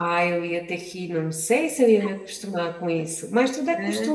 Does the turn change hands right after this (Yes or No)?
Yes